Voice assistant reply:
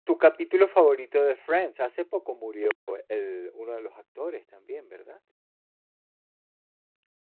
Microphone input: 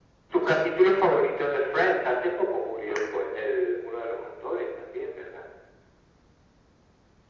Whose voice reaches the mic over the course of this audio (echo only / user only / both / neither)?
echo only